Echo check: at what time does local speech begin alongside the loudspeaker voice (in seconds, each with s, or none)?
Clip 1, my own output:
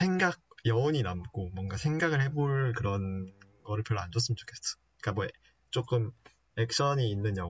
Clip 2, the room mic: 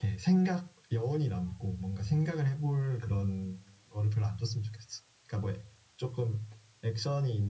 none